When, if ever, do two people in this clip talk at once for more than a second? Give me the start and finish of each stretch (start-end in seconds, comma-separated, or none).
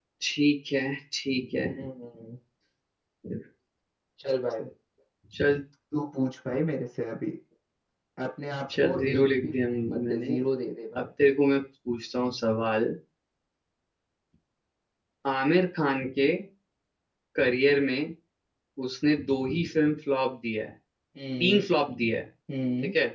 8.8-10.4